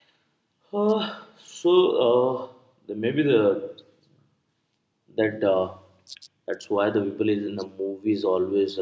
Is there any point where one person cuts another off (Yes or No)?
No